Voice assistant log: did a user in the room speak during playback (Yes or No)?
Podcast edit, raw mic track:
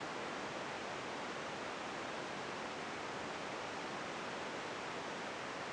No